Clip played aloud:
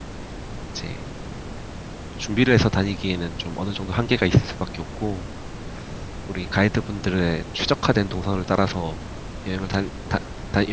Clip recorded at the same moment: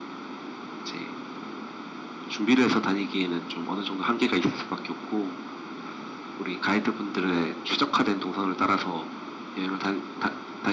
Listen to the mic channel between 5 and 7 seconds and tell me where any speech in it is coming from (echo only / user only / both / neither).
echo only